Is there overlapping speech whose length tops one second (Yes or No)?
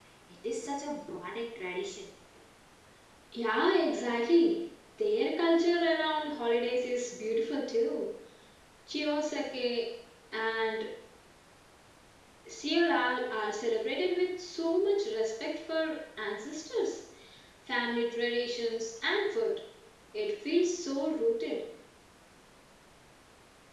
No